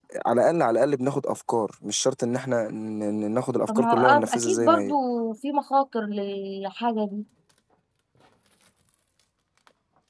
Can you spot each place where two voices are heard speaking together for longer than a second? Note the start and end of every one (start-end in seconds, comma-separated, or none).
3.7-4.9